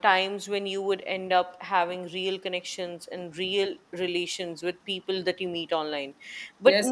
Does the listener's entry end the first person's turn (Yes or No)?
Yes